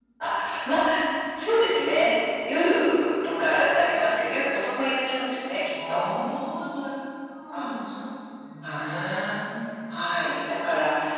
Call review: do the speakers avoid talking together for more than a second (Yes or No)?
Yes